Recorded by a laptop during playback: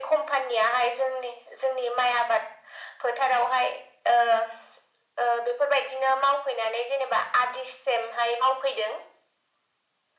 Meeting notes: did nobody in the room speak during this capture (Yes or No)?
Yes